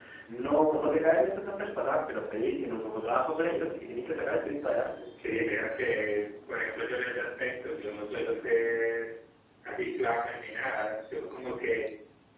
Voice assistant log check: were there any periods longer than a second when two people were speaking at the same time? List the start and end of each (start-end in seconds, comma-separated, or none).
none